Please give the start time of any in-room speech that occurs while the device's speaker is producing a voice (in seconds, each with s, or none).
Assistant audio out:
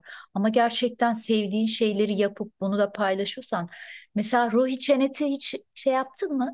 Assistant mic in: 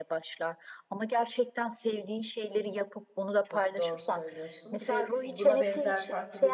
3.4 s